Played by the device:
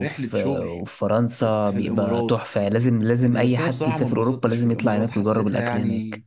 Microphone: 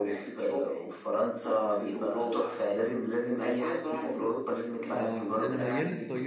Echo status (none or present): present